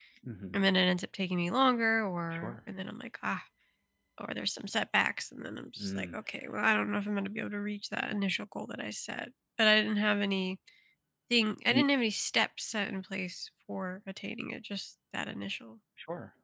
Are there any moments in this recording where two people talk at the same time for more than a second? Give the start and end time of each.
none

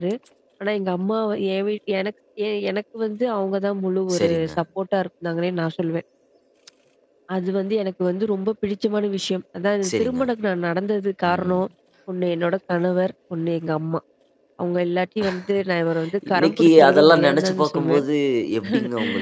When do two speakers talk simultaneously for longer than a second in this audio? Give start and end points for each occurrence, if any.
16.3-18.0

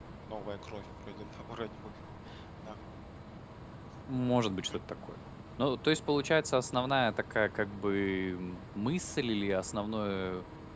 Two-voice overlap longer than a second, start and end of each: none

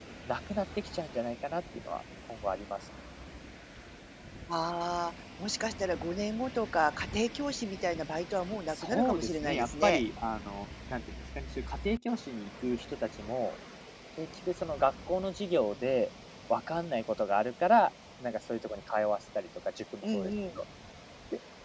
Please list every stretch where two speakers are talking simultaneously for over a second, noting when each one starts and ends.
8.7-10.0

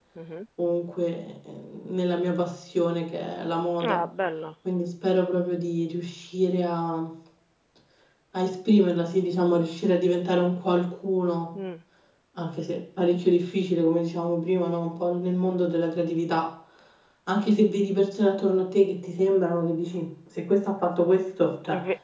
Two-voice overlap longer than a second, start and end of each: none

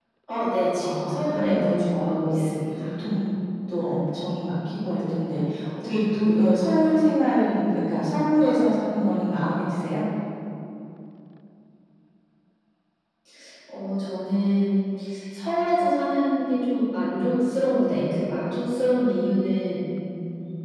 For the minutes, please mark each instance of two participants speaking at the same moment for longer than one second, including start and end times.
0.8-2.8

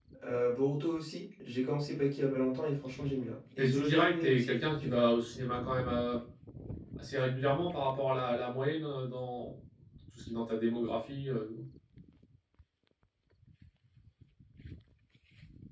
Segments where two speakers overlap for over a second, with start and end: 3.6-5.1

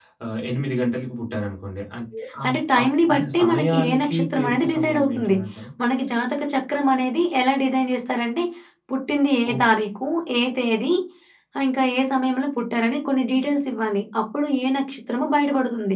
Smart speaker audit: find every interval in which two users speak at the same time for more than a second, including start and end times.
2.5-5.4

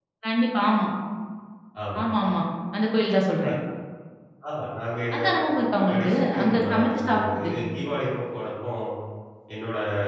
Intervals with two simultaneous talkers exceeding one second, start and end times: 5.8-7.5

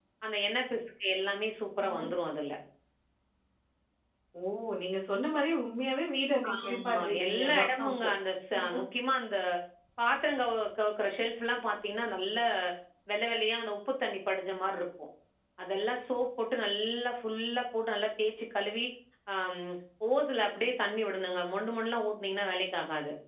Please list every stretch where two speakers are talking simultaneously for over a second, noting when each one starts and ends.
6.6-8.1

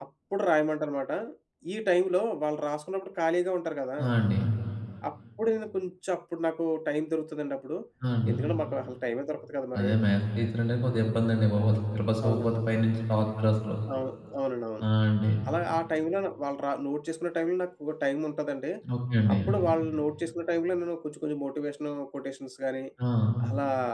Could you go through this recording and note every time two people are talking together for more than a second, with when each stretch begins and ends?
none

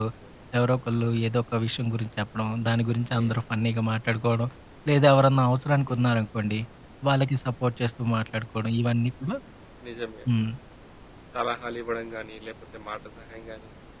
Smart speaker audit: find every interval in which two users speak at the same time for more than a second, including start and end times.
none

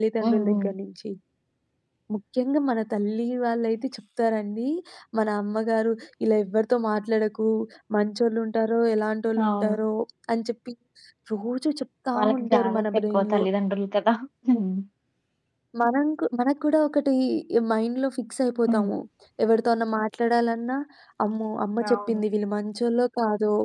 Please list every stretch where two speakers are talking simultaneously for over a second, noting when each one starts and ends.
12.2-13.4

